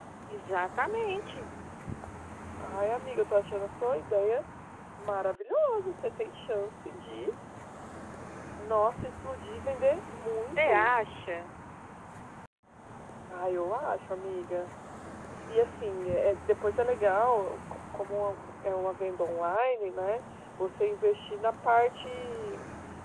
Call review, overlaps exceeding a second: none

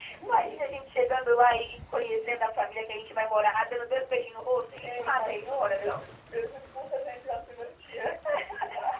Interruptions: present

